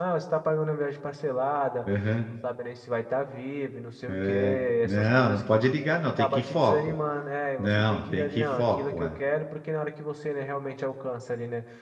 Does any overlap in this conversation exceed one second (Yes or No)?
Yes